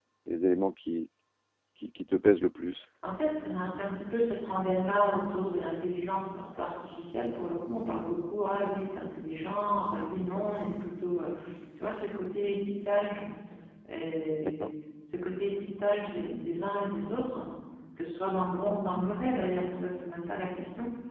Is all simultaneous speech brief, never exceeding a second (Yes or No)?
Yes